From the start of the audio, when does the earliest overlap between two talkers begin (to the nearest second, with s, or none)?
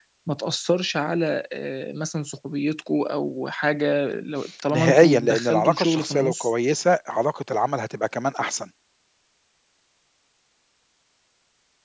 5 s